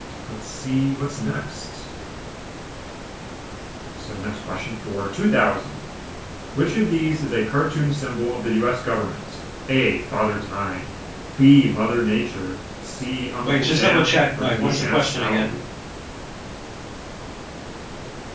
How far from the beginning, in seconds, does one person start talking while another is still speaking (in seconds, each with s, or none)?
13.4 s